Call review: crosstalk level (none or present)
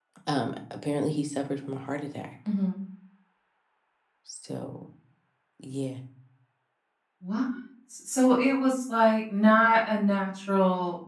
none